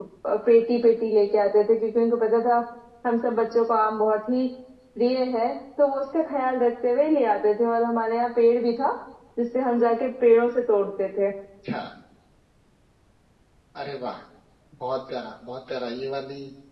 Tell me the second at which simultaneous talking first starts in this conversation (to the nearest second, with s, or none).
none